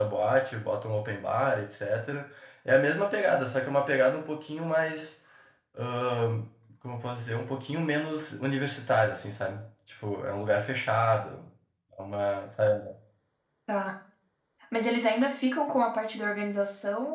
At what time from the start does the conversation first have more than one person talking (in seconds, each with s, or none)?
none